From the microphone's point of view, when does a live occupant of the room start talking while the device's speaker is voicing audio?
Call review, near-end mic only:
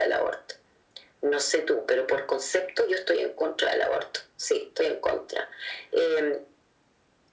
none

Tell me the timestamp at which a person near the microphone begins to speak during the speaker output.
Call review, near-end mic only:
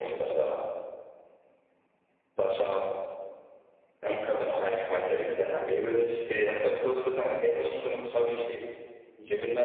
none

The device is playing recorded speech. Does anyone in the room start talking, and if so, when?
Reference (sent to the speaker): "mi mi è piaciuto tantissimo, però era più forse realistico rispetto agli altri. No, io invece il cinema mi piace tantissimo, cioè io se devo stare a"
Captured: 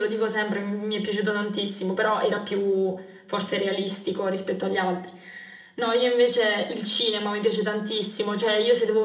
none

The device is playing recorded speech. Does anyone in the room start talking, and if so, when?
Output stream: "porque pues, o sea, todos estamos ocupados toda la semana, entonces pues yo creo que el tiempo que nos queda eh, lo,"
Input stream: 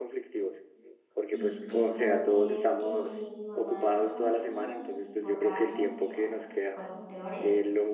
1 s

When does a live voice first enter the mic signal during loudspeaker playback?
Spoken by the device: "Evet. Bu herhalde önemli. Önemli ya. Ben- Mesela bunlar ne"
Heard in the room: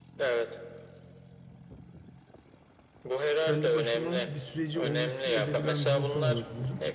3 s

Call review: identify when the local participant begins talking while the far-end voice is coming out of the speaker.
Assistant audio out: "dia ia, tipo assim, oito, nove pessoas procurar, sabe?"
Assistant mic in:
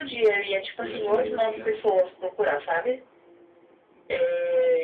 1 s

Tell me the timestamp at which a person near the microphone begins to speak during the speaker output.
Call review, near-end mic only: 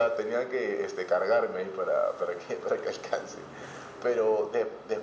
none

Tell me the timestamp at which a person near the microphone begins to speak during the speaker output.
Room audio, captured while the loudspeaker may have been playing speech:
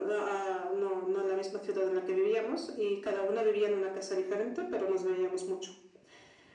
none

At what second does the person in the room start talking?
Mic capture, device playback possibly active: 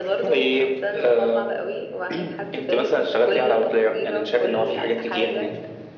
none

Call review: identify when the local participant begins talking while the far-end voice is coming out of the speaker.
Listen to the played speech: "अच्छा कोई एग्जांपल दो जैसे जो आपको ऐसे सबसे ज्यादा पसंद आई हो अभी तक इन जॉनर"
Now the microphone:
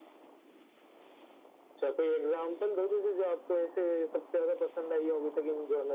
none

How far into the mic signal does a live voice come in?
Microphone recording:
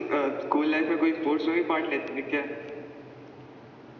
none

